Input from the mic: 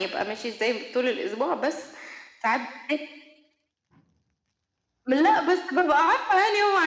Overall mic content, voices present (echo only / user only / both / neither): echo only